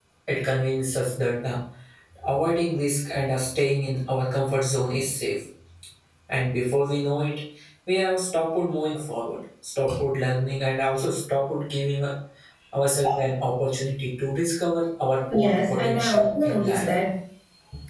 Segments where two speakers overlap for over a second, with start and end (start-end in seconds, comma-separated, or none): 15.4-16.9